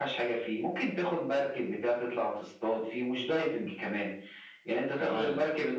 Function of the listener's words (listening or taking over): listening